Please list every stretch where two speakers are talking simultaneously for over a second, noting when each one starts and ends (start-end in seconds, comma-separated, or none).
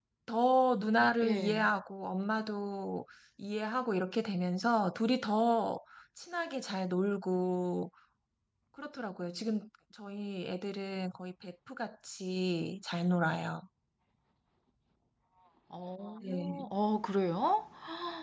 none